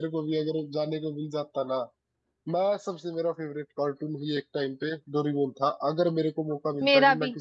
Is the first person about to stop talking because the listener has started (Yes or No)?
No